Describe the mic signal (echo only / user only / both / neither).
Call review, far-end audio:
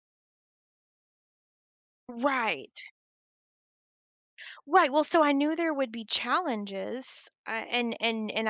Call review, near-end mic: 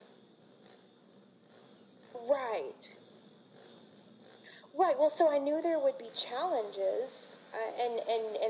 echo only